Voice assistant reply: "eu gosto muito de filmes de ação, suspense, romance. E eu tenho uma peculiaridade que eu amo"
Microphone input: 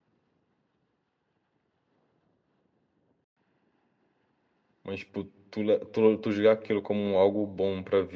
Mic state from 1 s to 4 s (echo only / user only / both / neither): neither